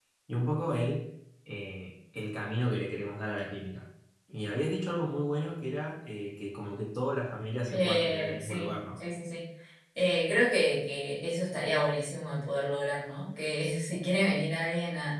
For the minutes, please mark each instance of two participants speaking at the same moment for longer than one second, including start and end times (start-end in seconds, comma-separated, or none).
7.7-9.0